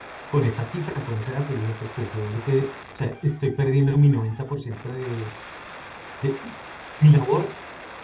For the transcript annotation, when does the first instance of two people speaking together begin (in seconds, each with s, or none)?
none